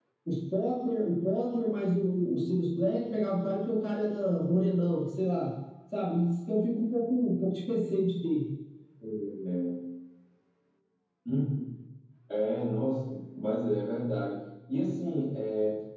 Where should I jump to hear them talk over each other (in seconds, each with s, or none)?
none